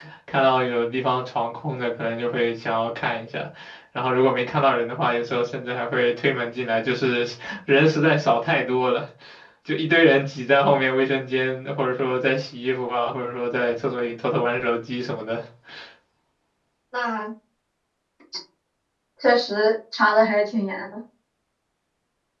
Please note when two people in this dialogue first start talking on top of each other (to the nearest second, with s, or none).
none